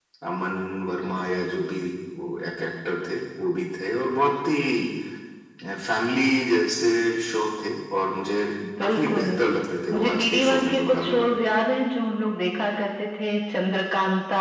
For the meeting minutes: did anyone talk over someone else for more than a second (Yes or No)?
Yes